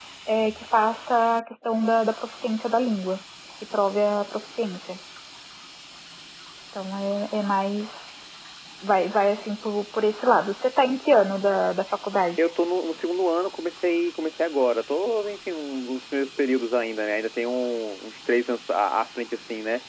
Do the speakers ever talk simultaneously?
No

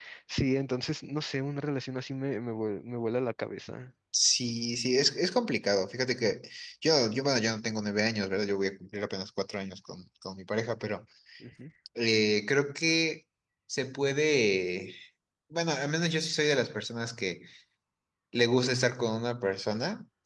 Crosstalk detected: No

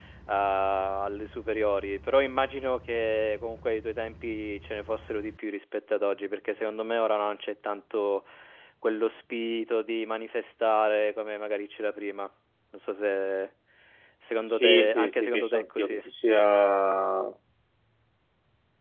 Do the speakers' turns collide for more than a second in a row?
Yes, from 14.5 s

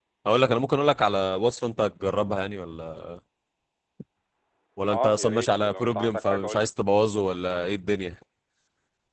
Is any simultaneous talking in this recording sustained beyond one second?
Yes, from 4.9 s

